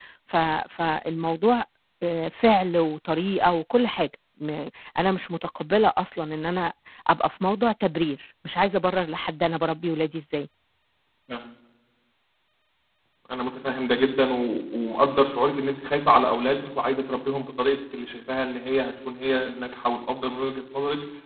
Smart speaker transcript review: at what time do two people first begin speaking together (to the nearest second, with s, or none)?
none